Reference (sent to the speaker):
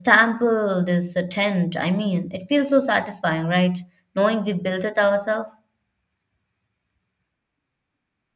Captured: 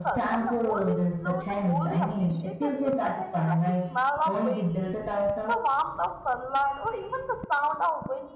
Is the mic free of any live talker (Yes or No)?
No